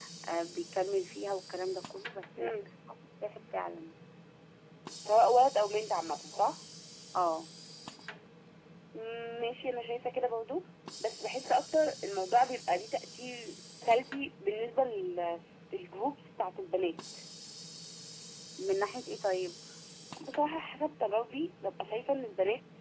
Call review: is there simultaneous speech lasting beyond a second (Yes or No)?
No